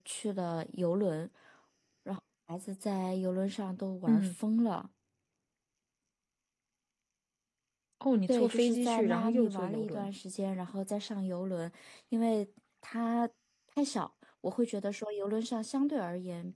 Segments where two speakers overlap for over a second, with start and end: 8.3-10.1

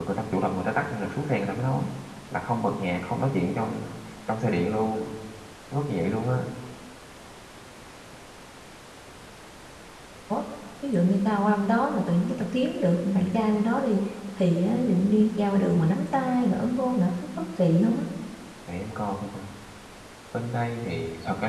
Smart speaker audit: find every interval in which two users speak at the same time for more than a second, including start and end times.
none

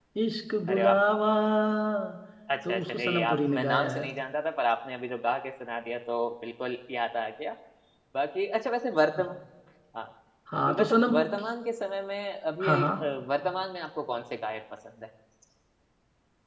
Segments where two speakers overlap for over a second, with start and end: 2.7-4.1

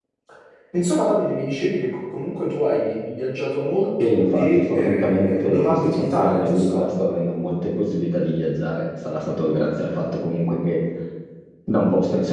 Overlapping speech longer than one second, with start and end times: 4.0-6.8

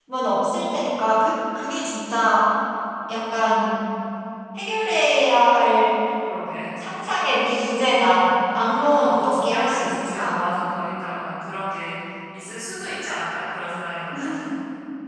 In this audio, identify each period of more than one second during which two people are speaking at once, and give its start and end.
8.8-10.4

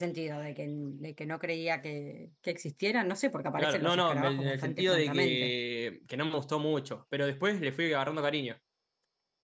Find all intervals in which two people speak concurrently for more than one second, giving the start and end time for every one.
3.6-5.5

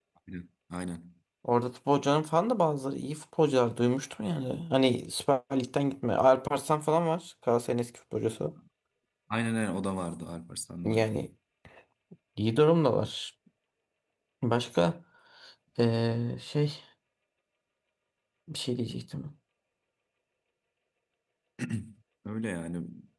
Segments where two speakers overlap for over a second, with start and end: none

